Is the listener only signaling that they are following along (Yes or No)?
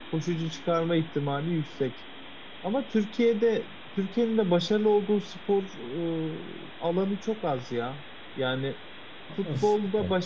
Yes